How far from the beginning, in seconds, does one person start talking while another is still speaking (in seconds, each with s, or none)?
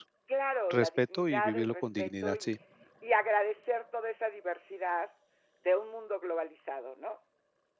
0.7 s